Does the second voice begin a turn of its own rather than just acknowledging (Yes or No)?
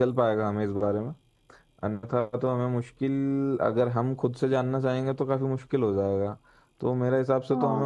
No